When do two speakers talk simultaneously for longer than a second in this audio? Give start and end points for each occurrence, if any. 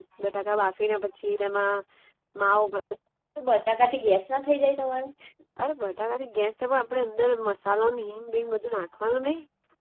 none

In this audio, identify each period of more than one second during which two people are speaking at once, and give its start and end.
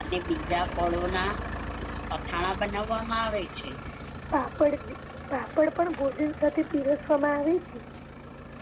none

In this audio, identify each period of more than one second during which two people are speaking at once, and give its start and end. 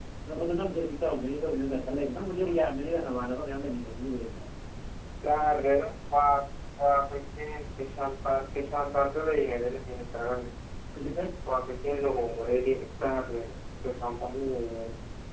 none

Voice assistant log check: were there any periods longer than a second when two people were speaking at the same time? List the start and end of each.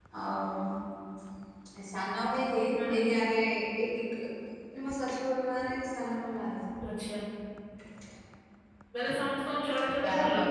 none

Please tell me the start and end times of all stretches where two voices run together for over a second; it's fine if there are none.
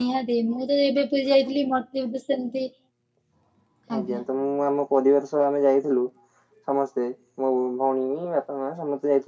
none

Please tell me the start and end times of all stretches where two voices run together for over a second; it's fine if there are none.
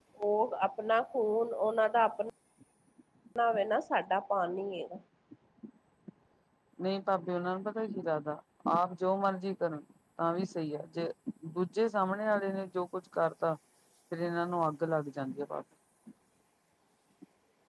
none

